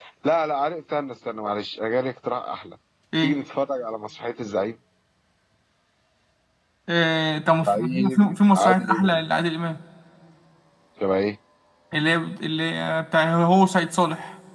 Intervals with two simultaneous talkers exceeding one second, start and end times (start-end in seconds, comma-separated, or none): 7.6-9.2